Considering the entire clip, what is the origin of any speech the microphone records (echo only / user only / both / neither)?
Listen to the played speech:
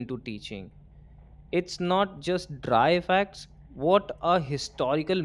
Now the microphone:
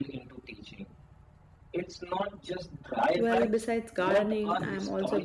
both